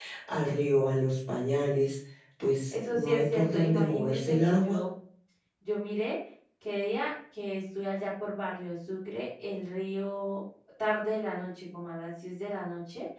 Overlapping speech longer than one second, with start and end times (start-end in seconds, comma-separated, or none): 2.7-4.8